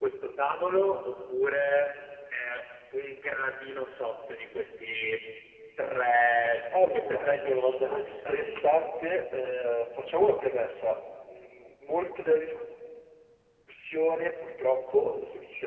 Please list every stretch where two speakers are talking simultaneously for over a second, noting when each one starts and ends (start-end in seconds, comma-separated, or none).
6.8-8.5